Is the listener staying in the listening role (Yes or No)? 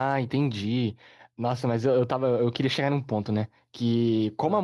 Yes